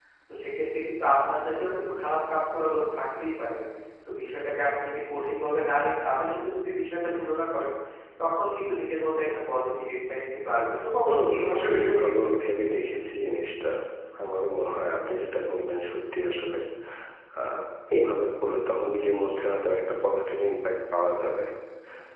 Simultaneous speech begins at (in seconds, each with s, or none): 11.0 s